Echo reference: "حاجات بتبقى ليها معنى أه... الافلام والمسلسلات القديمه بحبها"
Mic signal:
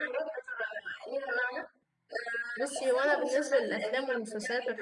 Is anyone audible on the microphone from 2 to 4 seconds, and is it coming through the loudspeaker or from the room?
both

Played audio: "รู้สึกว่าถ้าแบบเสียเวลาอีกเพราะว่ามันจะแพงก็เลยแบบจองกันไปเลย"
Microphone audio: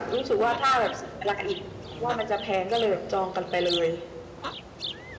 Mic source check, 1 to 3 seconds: echo only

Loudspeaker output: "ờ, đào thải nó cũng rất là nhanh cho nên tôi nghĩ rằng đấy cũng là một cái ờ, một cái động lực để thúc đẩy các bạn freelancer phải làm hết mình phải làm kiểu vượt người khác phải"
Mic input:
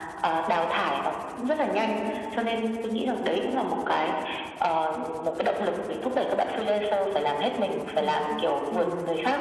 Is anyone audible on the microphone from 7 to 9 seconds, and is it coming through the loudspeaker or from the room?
both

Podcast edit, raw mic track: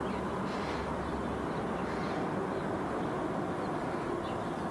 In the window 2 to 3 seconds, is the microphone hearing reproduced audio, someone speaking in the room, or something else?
neither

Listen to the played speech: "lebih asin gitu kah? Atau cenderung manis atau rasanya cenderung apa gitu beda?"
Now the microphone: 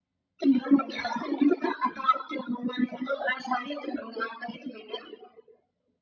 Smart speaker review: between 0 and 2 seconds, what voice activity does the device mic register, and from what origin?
echo only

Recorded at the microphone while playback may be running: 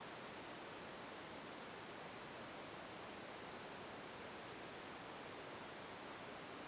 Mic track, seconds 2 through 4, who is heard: neither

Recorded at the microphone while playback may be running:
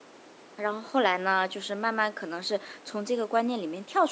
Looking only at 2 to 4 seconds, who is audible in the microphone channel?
user only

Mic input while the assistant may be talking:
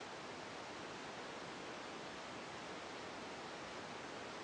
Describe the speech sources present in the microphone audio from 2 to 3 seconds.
neither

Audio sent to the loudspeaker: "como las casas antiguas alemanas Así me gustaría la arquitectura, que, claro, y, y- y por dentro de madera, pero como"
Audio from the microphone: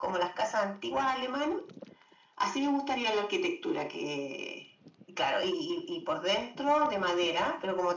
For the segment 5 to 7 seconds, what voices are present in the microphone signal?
echo only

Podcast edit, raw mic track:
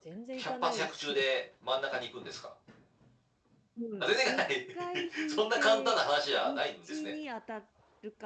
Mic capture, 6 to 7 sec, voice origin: both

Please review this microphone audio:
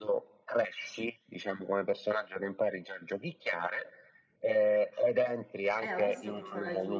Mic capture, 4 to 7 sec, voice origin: both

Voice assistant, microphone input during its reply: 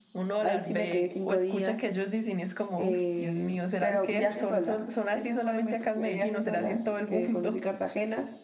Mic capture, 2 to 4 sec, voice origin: both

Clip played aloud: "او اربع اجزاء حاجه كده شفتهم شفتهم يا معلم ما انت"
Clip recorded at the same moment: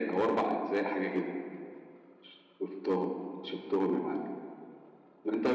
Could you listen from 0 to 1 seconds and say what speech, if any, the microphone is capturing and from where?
echo only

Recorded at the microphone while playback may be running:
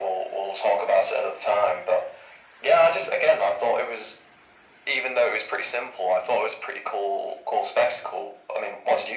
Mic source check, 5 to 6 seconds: echo only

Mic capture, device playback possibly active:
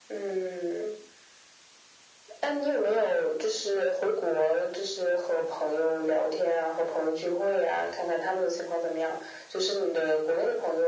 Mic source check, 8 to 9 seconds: echo only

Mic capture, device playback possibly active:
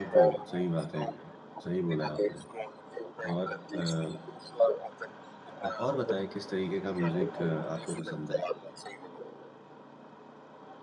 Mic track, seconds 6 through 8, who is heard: both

